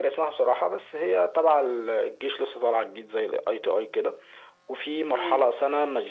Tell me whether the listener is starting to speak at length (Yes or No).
No